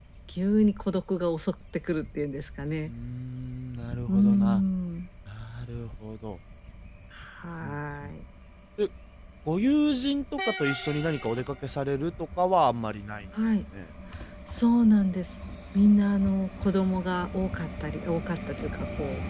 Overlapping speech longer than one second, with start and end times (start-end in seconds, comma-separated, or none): none